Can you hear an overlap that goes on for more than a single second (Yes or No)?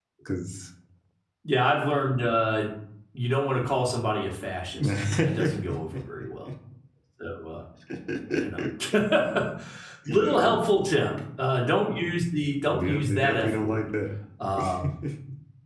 Yes